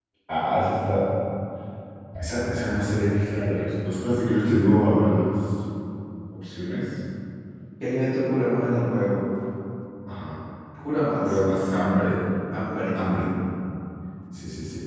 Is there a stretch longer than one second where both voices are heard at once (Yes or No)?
No